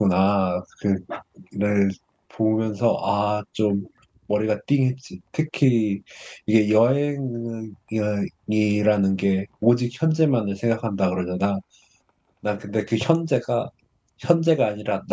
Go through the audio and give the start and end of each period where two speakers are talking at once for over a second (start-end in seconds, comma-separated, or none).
none